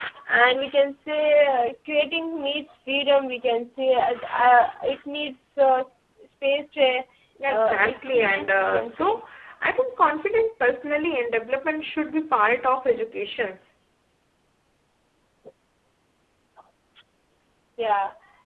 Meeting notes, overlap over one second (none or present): present